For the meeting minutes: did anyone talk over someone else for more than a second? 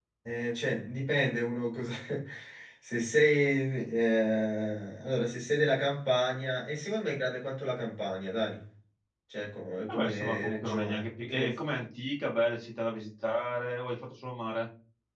Yes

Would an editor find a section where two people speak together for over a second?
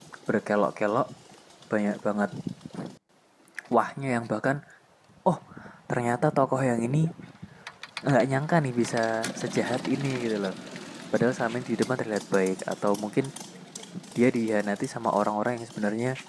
No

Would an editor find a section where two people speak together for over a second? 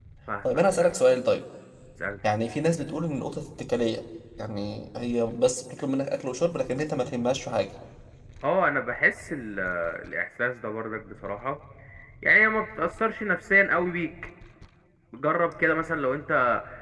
No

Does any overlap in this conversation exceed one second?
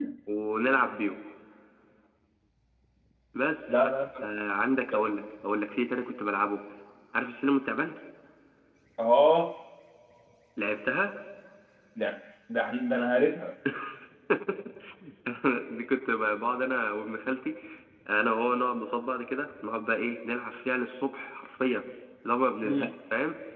No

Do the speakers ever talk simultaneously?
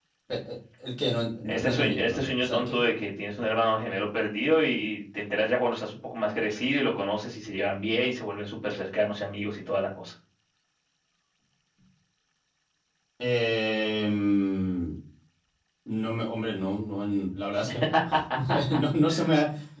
Yes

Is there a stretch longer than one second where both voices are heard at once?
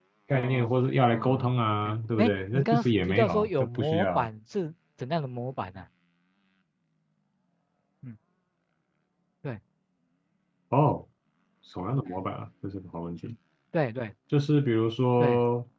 Yes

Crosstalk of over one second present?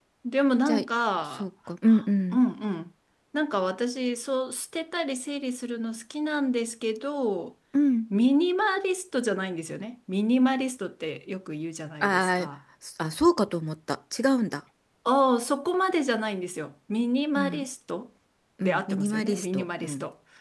Yes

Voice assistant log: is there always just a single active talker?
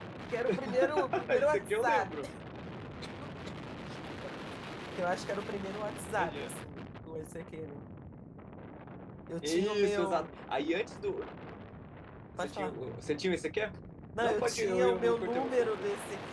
No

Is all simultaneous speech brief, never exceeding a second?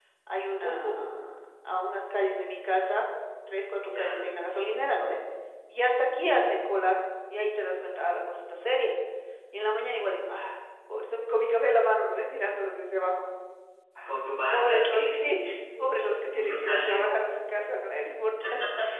No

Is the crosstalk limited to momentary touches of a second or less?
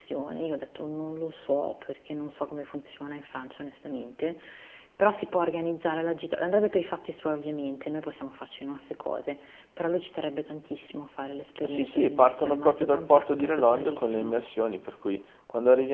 No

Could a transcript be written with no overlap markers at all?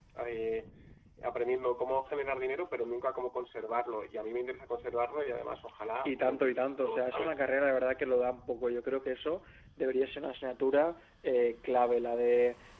No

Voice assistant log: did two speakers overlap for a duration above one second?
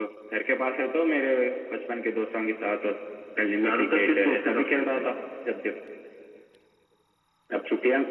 Yes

